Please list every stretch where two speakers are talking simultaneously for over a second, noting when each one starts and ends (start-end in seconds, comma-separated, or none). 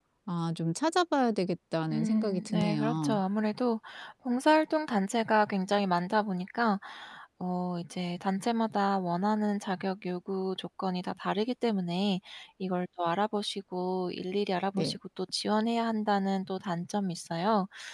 1.9-3.2